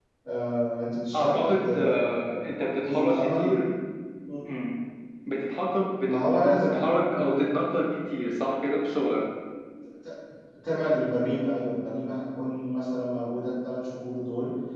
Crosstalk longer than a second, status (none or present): present